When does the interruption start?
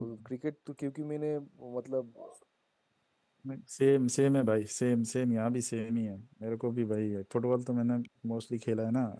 none

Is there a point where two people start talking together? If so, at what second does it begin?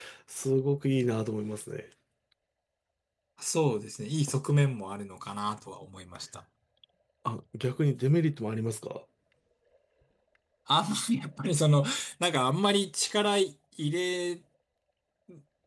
none

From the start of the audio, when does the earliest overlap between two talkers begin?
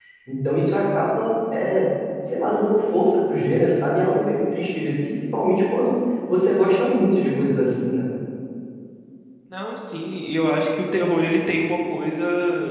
none

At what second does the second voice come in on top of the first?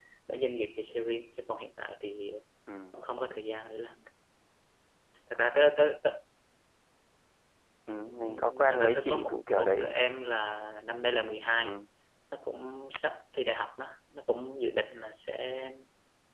8.0 s

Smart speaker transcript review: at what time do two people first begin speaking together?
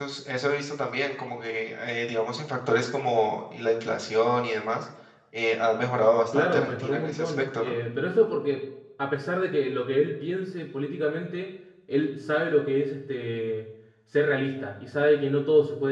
6.3 s

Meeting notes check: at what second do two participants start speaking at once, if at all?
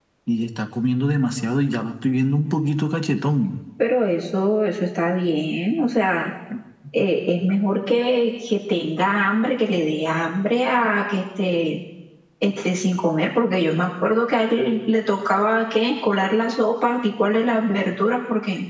none

